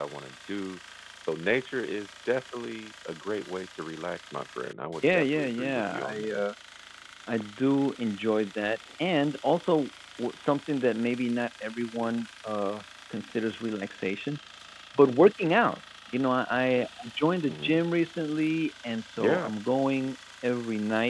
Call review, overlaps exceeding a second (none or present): present